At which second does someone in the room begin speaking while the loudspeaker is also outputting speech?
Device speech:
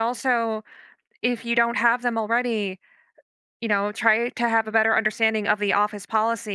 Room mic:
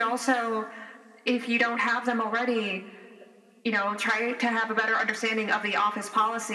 none

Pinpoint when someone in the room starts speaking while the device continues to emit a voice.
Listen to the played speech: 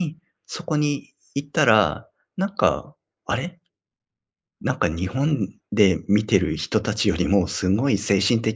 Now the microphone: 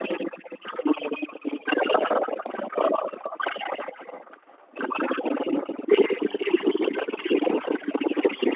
none

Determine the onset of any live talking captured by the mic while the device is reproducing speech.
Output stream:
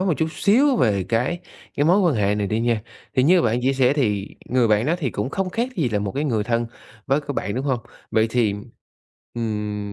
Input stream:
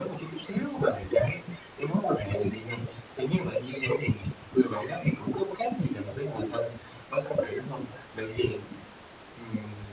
none

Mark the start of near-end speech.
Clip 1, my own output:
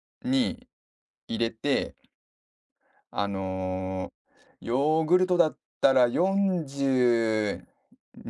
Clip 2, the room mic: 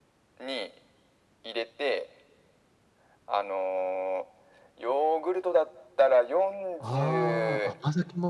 7 s

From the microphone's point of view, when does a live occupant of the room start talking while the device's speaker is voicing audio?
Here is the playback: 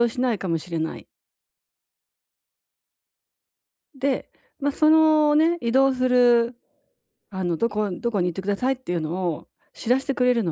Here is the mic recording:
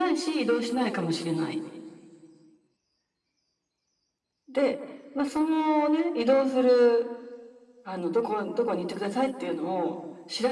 none

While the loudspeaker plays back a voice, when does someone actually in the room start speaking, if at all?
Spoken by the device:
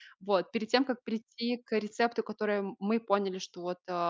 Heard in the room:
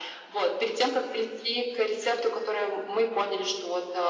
none

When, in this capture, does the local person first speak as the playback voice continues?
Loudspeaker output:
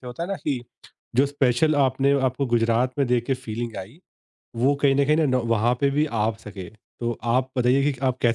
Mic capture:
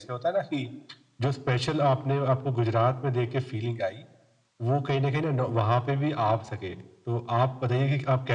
none

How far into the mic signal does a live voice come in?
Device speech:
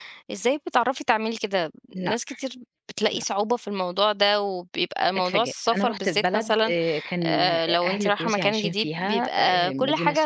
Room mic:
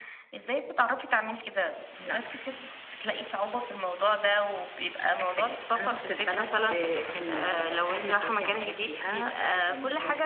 none

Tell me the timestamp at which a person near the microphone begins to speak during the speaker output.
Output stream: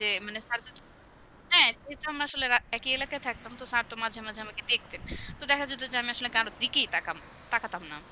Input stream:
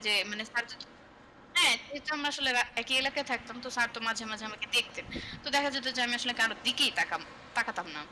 none

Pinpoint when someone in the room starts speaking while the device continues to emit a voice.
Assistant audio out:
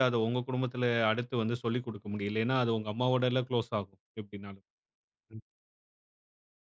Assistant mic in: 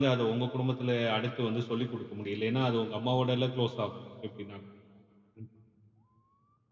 none

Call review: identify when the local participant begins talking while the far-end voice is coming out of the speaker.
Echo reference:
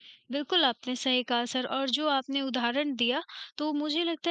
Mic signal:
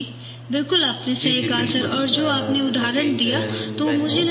1 s

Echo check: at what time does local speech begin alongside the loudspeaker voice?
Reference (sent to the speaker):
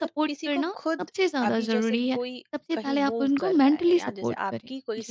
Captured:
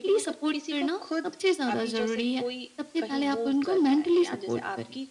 none

